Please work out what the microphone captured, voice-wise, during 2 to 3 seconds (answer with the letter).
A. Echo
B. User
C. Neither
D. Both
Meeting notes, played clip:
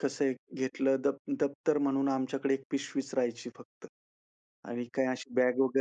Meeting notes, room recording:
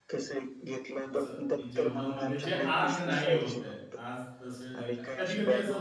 D